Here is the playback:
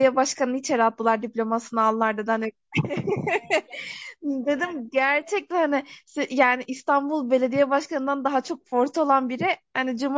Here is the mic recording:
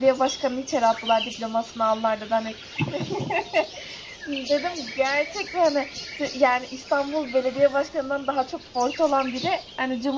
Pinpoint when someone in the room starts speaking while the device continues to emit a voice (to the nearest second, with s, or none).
none